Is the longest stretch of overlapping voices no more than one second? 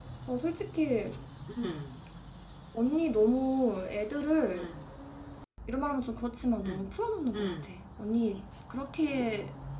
Yes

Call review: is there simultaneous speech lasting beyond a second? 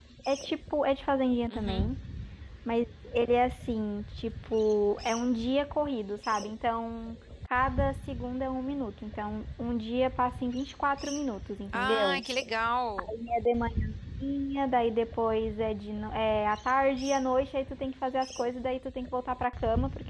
No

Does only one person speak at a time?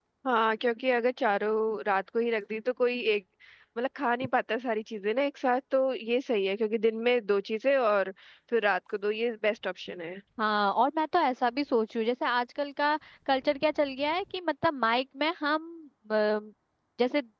Yes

